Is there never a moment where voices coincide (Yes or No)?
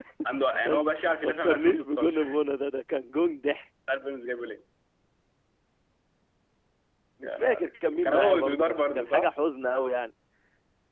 No